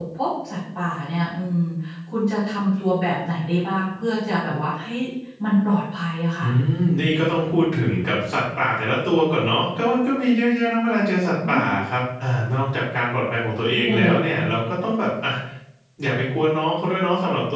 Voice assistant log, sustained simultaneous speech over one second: none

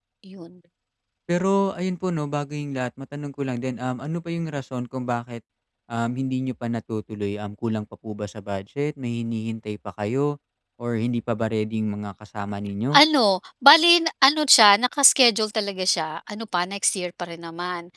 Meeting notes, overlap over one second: none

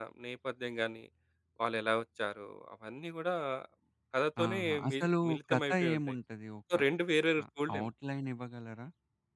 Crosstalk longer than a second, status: present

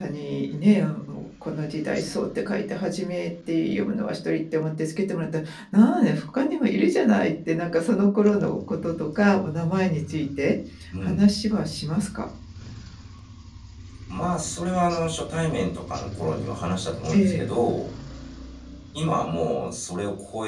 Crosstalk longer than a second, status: none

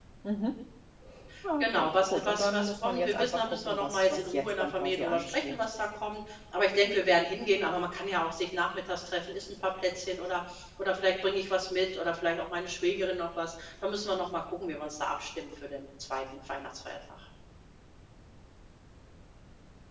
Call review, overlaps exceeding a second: present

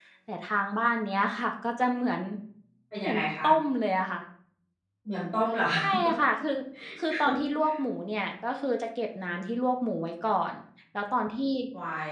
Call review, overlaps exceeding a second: none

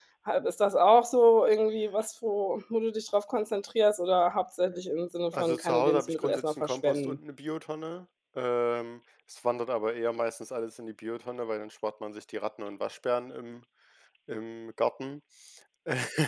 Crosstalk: present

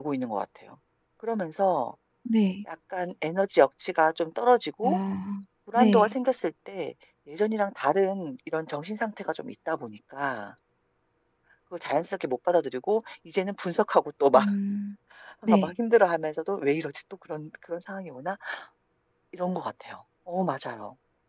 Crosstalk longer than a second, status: none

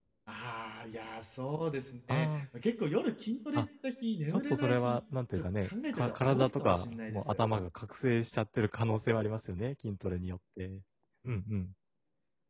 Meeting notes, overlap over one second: present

